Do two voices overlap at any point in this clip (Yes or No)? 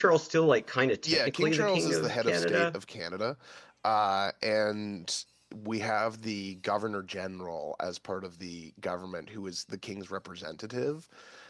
Yes